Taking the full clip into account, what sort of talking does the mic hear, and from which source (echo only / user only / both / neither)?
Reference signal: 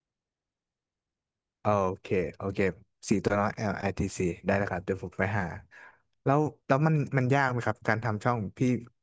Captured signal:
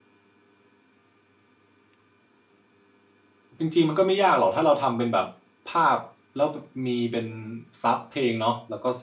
user only